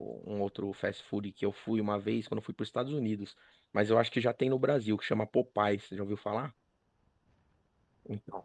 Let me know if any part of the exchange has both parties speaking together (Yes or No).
No